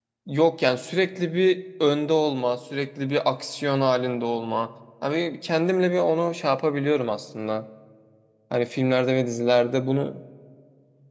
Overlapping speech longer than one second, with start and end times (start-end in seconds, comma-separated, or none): none